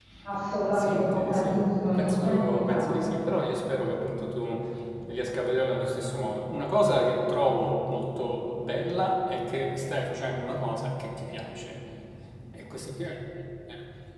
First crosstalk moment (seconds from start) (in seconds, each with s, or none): 0.7 s